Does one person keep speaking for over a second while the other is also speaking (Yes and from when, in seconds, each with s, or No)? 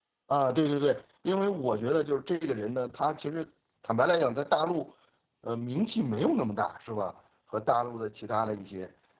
No